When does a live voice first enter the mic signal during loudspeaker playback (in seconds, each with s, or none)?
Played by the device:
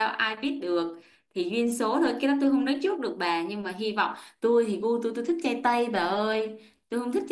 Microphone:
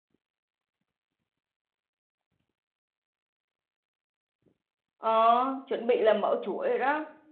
5.0 s